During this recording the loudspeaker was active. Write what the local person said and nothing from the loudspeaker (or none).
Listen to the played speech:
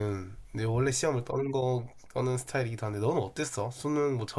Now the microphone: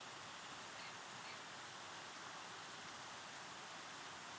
none